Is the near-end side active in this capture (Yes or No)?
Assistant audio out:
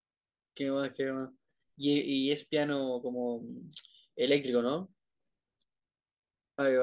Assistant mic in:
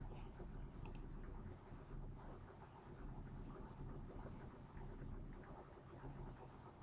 No